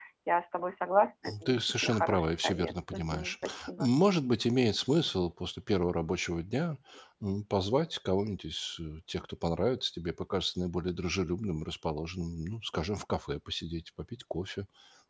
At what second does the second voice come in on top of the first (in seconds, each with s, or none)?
1.2 s